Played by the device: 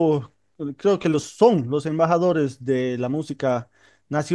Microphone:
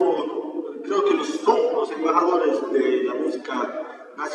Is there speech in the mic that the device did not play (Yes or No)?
No